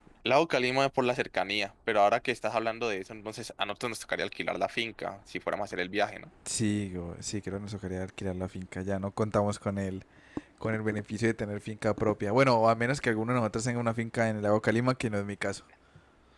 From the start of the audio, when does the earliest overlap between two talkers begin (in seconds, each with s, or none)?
none